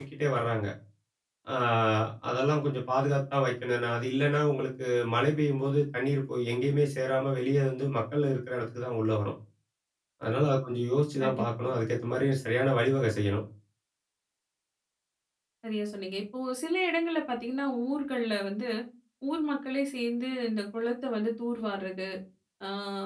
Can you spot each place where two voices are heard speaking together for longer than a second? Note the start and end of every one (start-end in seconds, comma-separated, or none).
none